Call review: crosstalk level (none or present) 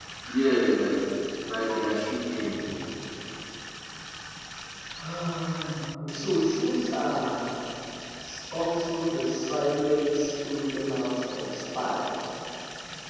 none